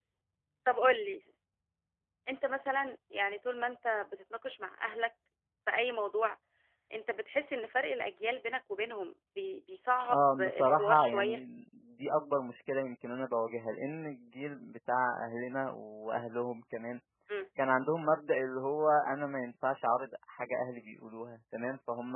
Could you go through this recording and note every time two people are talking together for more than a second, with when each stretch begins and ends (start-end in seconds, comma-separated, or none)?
10.1-11.4